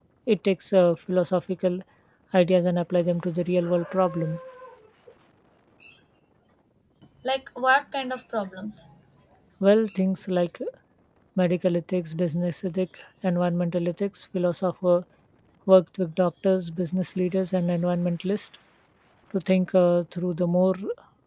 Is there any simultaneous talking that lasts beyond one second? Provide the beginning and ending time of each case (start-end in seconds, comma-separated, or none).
none